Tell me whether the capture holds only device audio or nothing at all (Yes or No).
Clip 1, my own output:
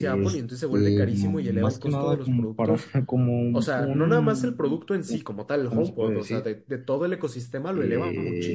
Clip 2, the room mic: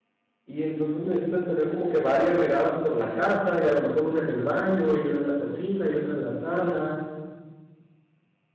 No